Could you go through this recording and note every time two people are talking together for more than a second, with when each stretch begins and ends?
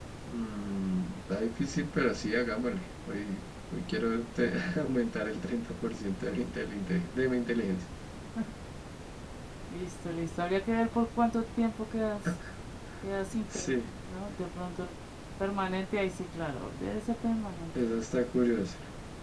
none

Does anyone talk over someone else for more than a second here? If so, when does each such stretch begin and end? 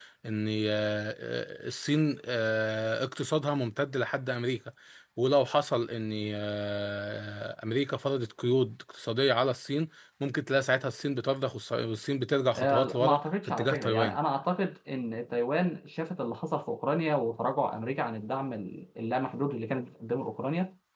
12.6-14.2

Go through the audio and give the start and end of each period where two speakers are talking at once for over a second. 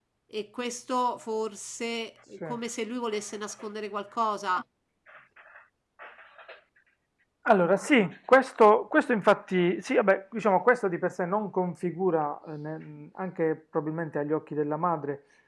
none

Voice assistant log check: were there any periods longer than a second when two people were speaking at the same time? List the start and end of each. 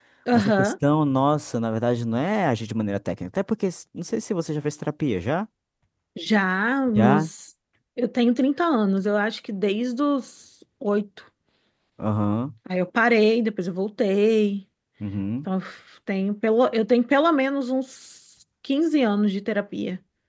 none

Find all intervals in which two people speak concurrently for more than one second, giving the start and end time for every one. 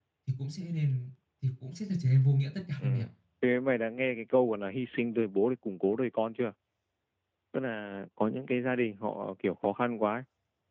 none

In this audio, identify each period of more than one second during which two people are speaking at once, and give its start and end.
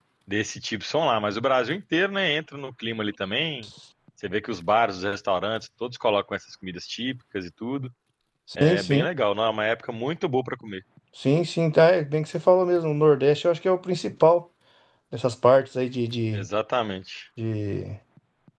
none

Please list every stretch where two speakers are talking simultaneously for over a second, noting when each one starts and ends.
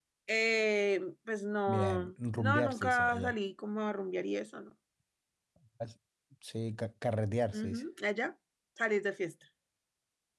1.7-3.4

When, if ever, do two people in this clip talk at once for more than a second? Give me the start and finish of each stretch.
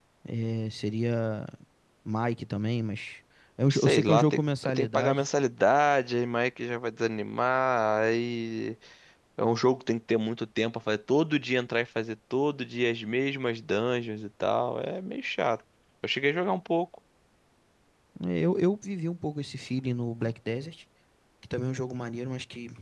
3.7-5.2

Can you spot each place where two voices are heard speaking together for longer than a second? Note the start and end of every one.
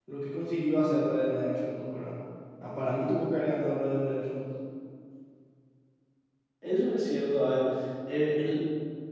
none

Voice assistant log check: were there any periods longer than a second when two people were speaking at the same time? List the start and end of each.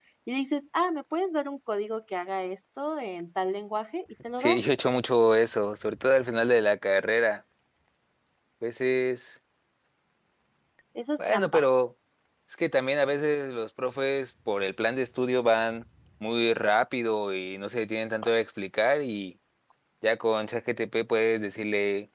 none

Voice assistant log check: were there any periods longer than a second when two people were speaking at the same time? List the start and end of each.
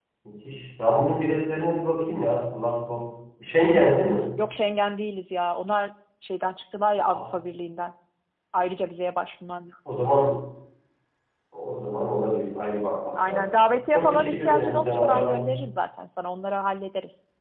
13.3-15.5

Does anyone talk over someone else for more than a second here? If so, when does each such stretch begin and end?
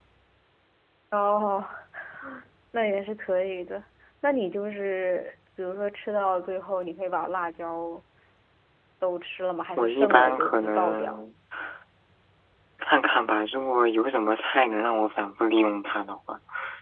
9.8-11.2

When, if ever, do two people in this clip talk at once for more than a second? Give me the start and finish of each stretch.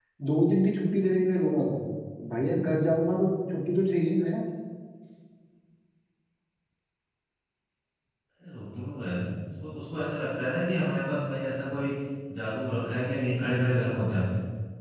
none

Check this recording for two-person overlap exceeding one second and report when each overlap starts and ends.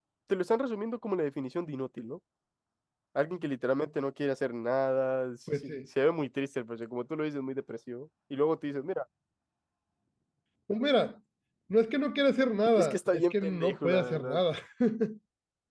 12.8-14.4

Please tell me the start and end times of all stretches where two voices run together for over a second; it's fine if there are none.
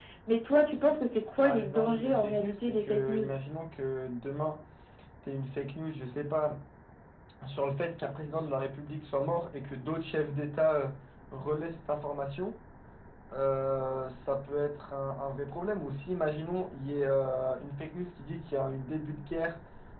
1.4-3.2

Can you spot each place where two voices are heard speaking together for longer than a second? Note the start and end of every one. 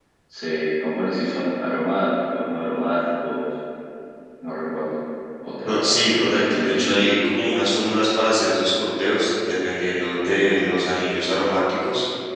5.6-7.0

